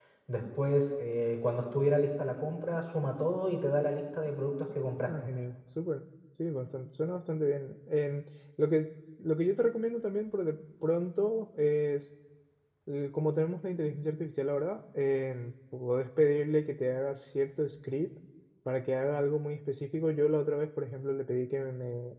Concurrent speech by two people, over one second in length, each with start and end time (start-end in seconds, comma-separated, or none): none